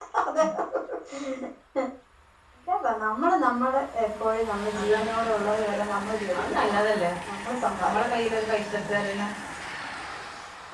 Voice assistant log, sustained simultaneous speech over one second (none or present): none